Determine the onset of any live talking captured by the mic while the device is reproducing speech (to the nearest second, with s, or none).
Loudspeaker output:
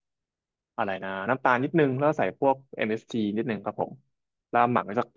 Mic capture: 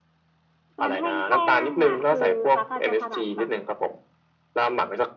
1 s